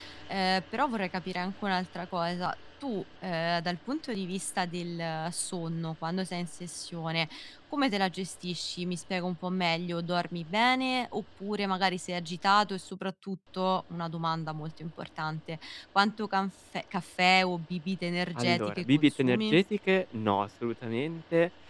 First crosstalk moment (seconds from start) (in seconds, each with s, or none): 18.4 s